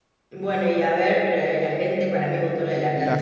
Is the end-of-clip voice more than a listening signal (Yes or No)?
Yes